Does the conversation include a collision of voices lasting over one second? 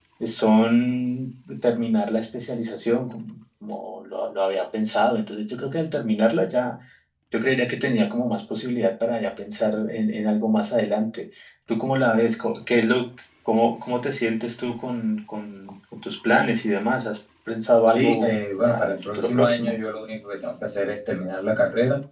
Yes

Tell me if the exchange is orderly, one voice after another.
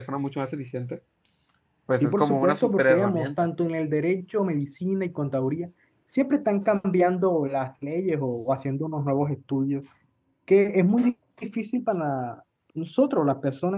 No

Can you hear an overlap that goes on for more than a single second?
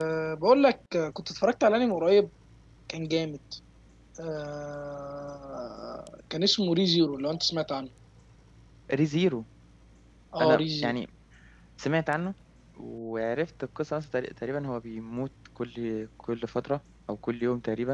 No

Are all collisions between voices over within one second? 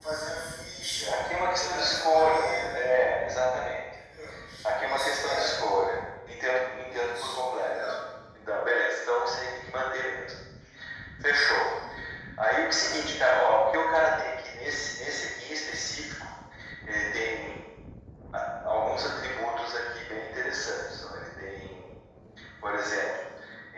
No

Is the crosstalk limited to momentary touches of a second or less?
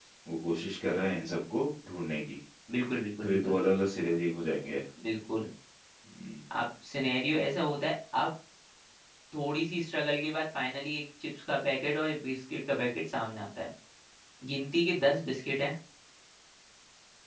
Yes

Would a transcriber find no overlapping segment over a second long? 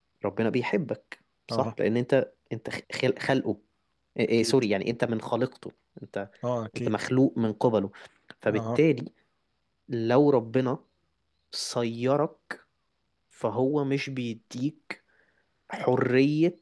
Yes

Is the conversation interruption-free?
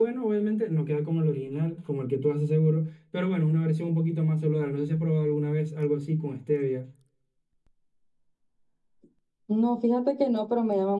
Yes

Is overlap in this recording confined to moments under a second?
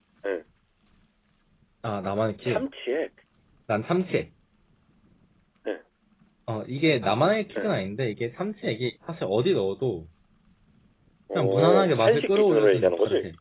No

